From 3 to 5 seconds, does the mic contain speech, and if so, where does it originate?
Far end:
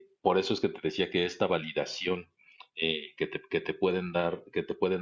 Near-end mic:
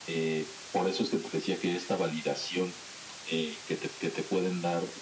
echo only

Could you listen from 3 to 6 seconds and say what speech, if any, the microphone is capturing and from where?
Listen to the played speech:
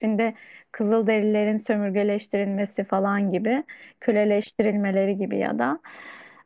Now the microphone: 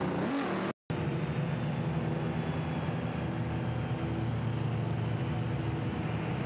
neither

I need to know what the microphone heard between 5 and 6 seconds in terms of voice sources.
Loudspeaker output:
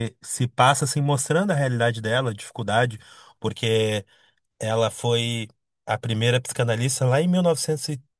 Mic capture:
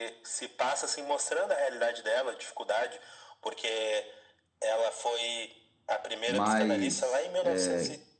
echo only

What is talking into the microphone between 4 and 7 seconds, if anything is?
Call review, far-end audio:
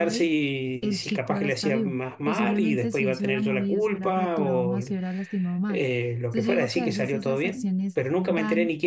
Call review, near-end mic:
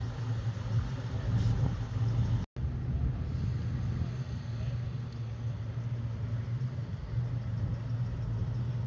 neither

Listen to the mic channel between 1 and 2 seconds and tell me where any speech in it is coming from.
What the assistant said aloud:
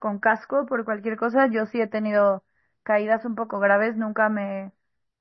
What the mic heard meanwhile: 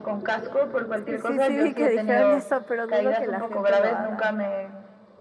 both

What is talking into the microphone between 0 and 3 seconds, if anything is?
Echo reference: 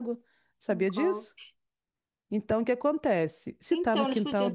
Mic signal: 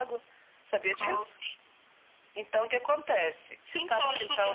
echo only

